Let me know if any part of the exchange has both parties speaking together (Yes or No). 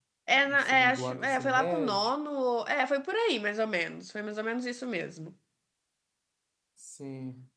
Yes